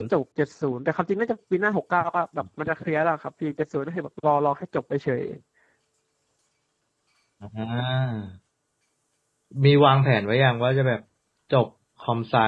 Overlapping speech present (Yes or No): No